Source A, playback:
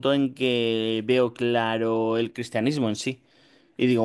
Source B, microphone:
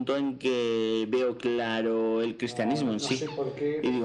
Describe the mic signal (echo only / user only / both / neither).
both